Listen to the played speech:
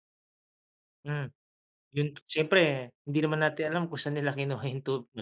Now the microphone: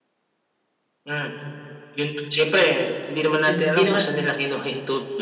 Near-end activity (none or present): present